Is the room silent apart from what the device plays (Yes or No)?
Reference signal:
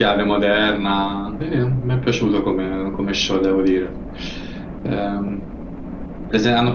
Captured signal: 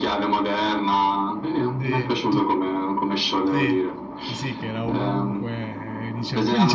No